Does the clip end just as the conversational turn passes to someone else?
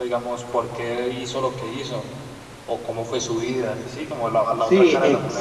Yes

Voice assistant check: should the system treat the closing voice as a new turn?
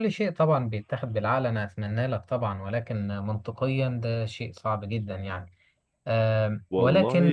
Yes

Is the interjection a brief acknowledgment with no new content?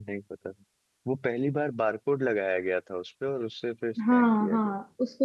No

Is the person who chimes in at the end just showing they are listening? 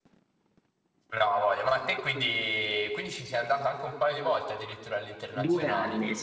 No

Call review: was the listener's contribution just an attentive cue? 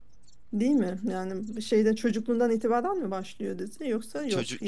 No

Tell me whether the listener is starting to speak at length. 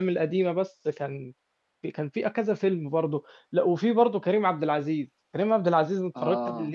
No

